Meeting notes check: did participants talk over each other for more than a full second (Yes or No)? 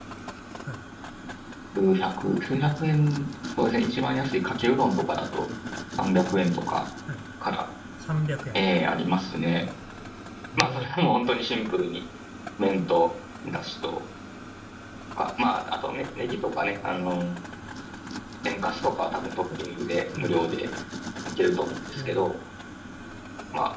No